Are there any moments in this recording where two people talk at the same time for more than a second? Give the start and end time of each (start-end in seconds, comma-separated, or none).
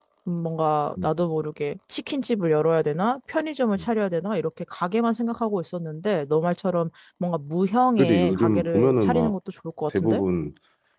8.0-9.3